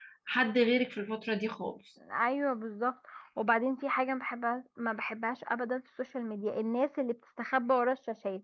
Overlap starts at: none

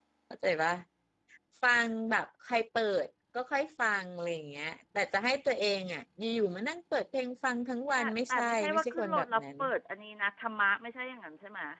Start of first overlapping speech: 8.0 s

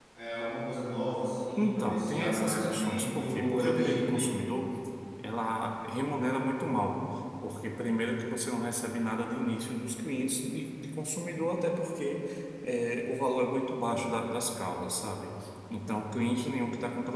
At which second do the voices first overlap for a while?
1.6 s

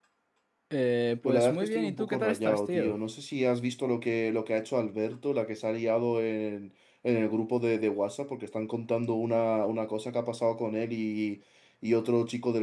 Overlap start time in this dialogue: 1.2 s

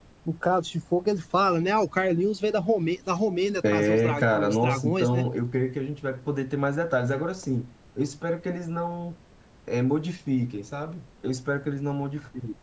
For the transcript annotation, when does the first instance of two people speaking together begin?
3.6 s

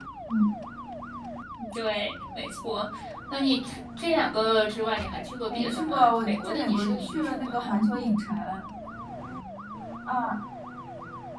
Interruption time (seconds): 5.5 s

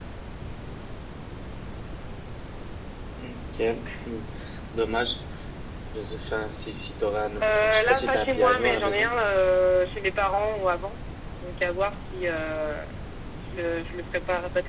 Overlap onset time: 7.4 s

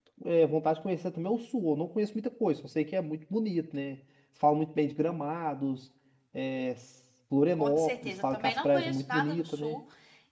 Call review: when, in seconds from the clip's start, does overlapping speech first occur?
7.5 s

